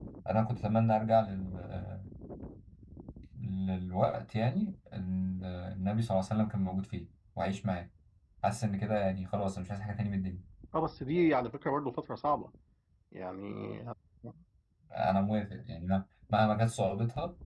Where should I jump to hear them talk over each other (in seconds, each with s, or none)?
none